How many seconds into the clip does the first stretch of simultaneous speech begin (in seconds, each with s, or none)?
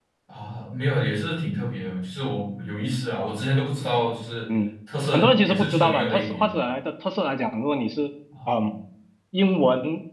5.1 s